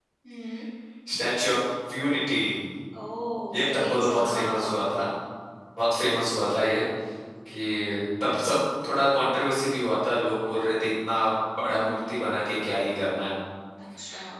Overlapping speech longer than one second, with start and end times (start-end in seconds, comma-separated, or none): 3.5-4.7